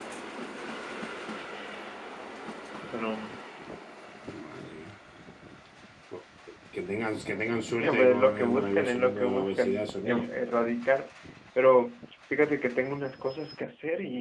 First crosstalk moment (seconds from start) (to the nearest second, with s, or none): 8 s